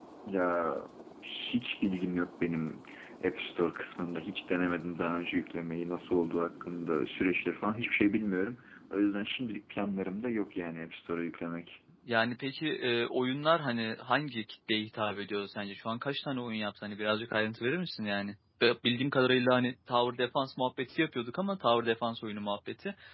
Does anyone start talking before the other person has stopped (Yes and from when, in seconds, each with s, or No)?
No